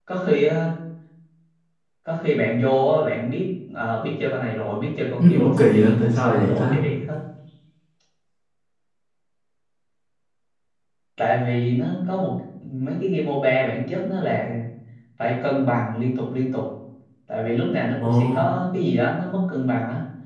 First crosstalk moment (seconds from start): 5.3 s

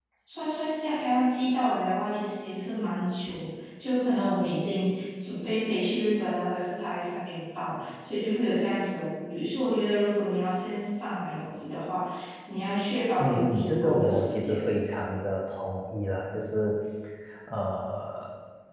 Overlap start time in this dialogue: 13.2 s

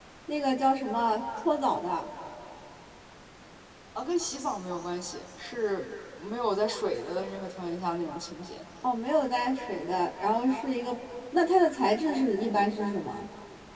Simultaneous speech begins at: none

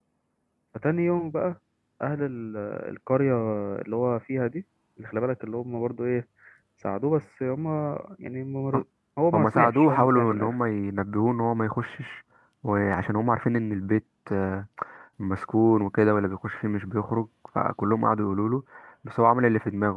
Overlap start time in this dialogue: 9.3 s

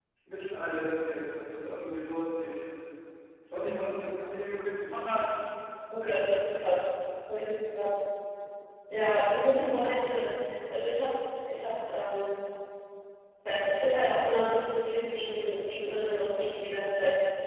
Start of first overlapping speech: none

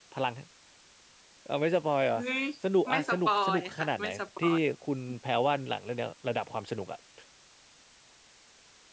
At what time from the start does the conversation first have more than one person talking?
2.9 s

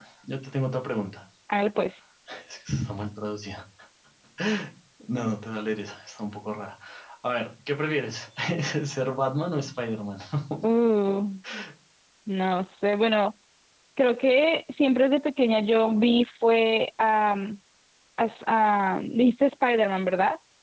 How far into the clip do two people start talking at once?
none

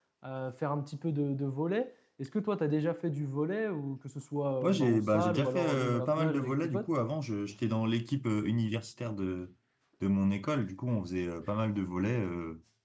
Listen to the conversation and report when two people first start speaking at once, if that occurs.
4.6 s

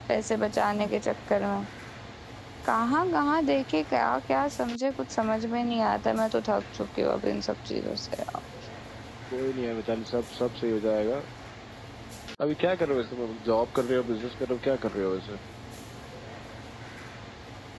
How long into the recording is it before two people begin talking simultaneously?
none

